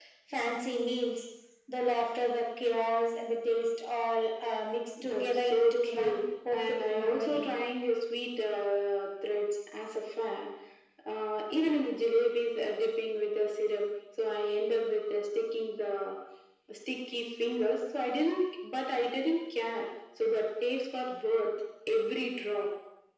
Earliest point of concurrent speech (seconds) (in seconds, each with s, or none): 5.0 s